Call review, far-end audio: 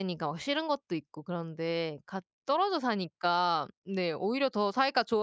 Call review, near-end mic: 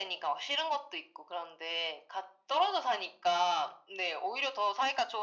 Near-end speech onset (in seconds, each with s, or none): none